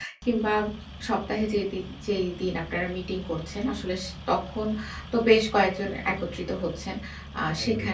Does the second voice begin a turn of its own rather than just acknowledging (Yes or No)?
No